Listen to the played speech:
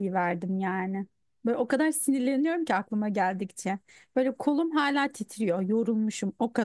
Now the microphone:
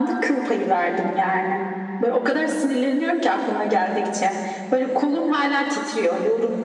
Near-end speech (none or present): none